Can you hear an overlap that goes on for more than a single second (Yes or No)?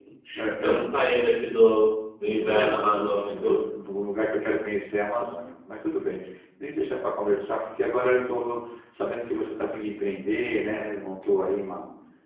Yes